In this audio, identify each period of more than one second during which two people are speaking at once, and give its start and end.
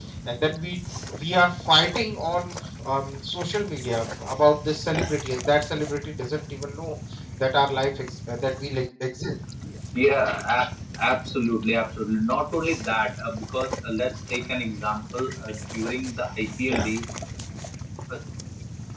none

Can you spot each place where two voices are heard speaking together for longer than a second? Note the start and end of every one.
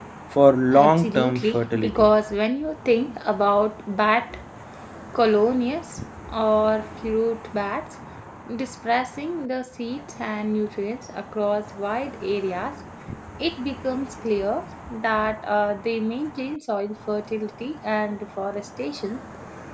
0.7-2.1

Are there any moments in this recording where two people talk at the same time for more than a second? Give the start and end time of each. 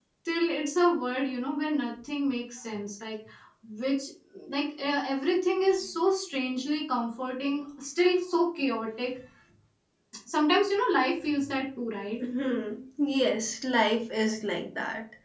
none

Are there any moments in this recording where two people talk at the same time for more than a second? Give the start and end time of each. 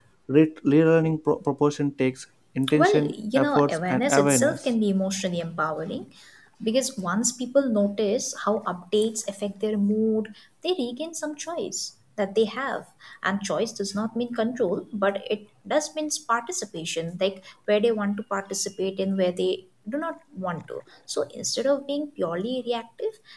2.8-4.6

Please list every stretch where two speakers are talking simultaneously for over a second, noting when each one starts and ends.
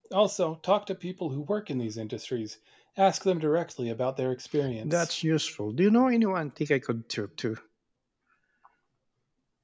none

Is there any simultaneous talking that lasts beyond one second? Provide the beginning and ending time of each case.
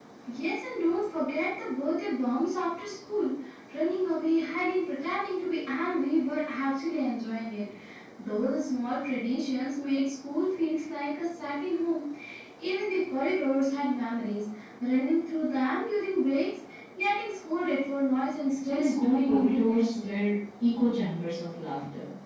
18.7-20.2

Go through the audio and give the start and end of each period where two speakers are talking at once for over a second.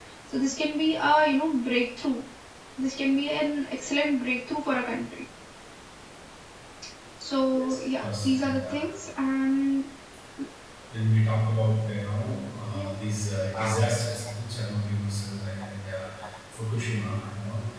7.5-8.8

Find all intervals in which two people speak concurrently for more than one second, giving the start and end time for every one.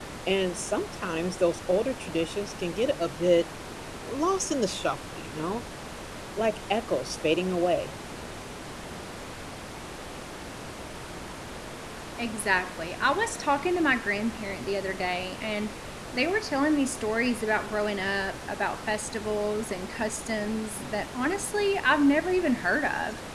none

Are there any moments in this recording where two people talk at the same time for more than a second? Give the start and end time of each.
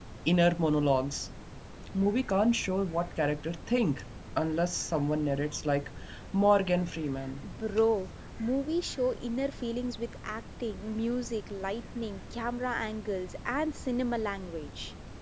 none

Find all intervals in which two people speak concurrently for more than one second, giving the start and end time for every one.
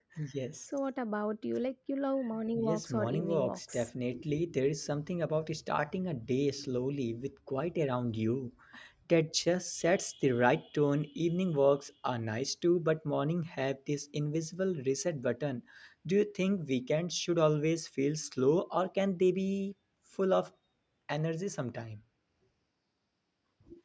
2.5-3.9

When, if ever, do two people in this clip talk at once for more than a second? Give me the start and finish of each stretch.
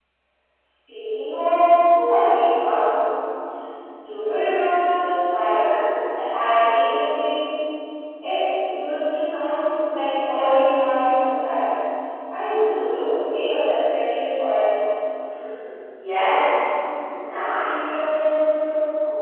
none

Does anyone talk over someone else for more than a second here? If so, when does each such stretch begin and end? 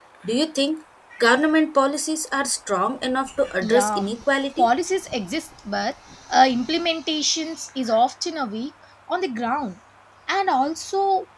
none

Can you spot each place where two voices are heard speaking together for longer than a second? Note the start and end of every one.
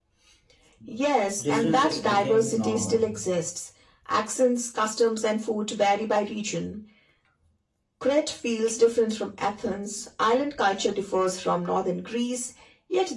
1.4-3.2

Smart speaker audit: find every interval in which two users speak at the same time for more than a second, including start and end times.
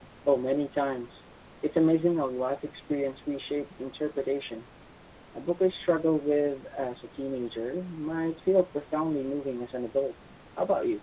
none

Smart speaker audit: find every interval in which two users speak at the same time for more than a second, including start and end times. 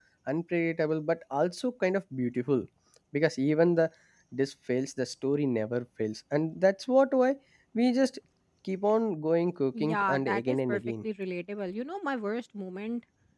9.8-11.0

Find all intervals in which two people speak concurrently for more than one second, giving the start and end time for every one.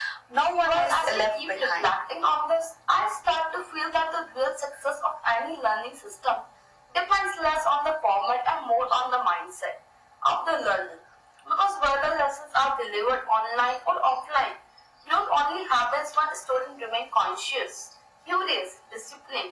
0.6-2.0

